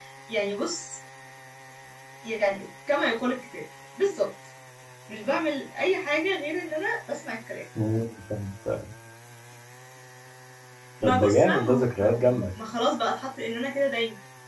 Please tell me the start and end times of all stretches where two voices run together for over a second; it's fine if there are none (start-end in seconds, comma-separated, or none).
11.0-12.5